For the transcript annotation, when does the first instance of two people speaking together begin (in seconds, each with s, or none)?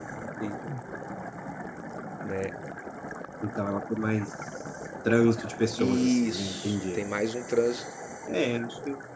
5.8 s